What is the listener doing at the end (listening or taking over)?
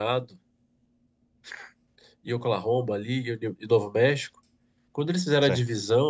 listening